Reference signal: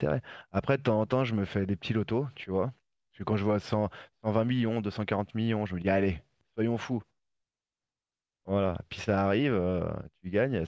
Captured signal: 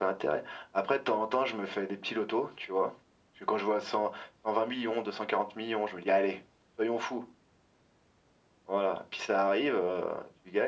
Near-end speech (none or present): none